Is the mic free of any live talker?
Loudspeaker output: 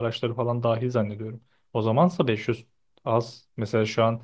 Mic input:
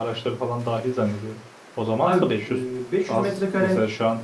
No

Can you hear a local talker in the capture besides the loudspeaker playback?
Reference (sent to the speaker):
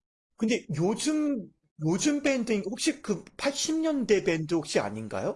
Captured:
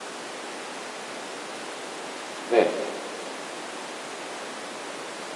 Yes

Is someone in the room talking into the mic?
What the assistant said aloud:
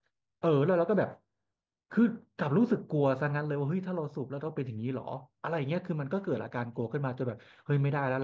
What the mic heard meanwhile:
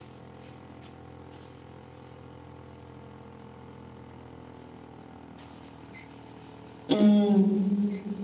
Yes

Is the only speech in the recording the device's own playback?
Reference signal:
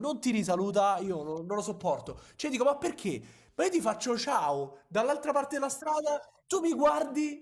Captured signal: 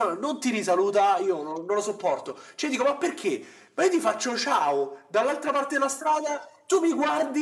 Yes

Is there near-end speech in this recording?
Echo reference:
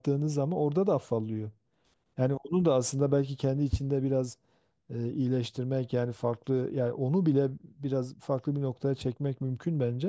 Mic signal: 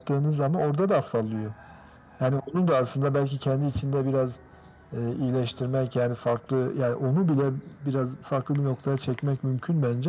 No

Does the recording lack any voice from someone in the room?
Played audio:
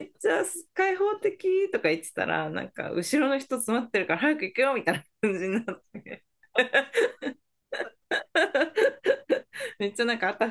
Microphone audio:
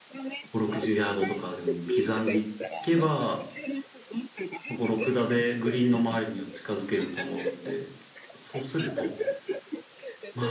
No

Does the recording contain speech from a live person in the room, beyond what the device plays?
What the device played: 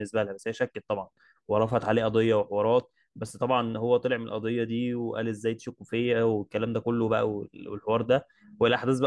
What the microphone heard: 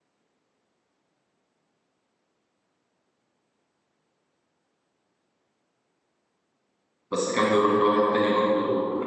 Yes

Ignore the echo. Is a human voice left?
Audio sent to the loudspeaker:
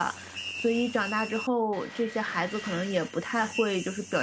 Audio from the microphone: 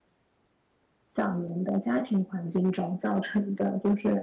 Yes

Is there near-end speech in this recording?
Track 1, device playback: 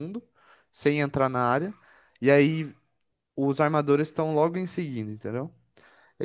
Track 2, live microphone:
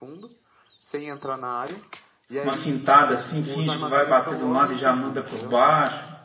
Yes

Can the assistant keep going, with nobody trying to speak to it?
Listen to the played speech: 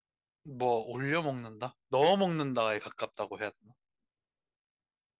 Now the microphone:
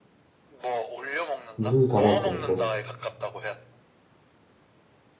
No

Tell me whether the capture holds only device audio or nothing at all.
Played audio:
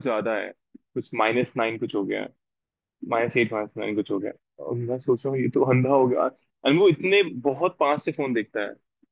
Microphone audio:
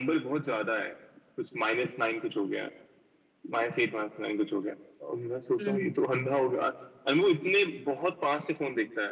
No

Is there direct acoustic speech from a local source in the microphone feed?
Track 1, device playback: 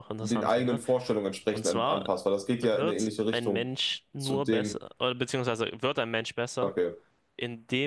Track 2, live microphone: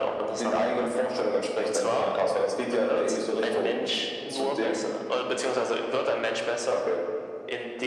No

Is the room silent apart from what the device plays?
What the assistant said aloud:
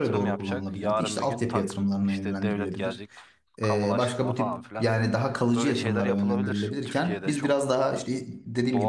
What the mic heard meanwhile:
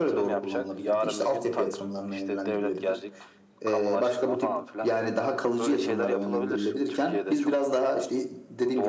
Yes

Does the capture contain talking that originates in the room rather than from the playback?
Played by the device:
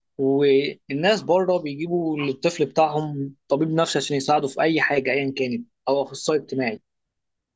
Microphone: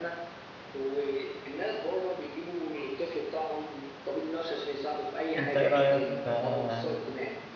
Yes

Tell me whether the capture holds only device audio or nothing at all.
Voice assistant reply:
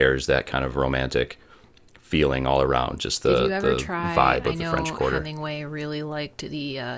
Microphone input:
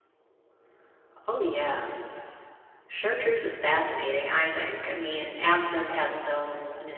No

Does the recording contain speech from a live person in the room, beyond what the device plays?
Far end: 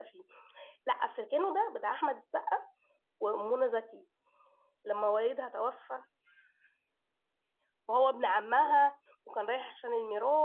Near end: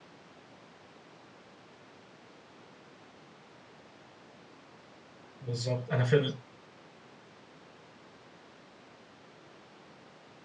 Yes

